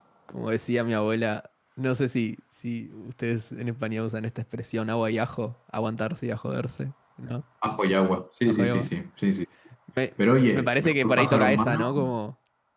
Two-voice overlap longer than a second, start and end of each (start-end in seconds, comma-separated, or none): 10.5-12.1